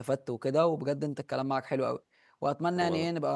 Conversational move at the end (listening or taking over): listening